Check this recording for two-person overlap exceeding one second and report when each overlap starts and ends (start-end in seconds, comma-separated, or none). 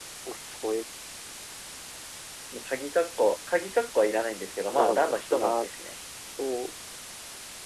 4.7-5.9